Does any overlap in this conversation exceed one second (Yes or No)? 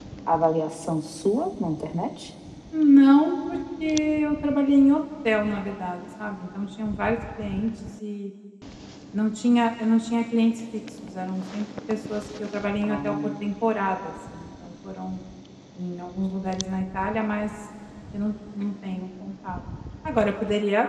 No